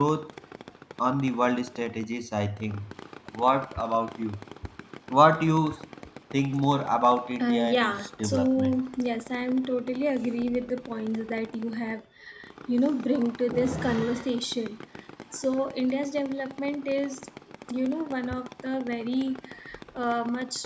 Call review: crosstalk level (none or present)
present